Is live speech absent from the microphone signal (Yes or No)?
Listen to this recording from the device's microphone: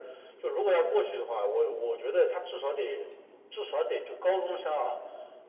Yes